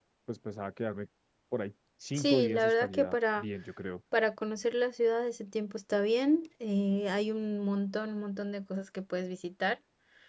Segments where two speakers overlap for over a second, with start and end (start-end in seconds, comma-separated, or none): 2.1-3.5